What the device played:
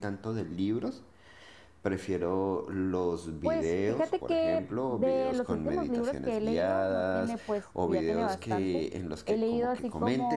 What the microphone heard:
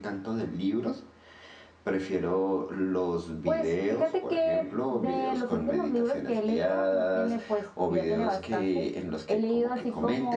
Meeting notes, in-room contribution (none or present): none